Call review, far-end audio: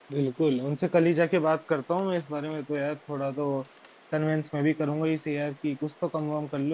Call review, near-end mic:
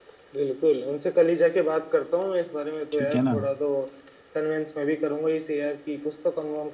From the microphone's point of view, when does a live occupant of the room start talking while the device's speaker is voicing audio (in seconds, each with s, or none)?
2.9 s